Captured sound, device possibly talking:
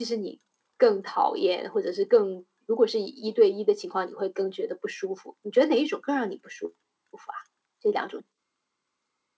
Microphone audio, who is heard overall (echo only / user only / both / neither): echo only